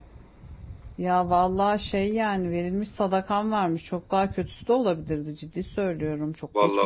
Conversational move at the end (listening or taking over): taking over